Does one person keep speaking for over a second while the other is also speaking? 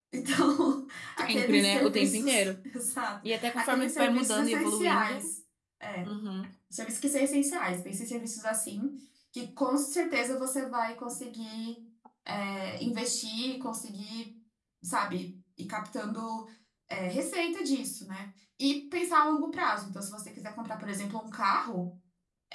Yes, from 1.3 s

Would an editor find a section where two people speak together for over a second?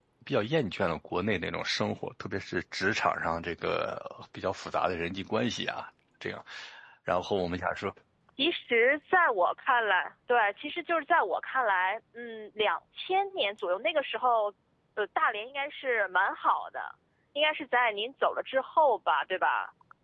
No

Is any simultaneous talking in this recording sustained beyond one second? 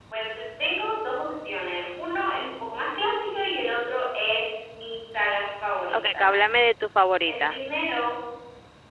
No

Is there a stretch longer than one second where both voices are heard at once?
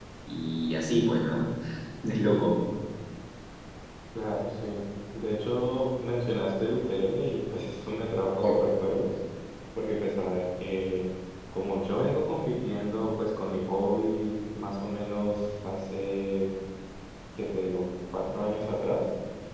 No

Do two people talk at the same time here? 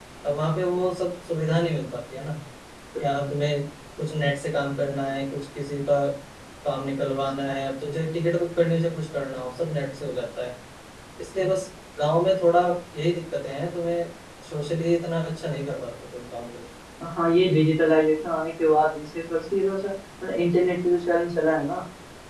No

